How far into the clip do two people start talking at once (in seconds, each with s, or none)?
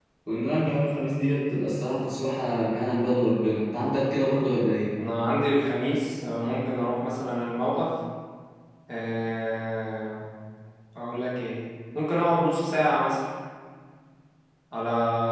none